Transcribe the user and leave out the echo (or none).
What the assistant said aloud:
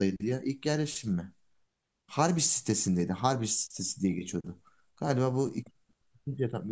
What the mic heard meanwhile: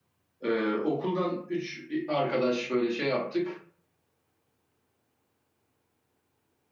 Ee, okuldan üç arkadaş böyle şey yaptık.